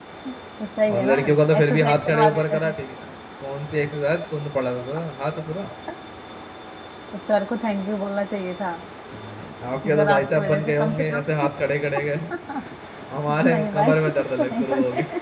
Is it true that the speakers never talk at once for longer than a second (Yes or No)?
No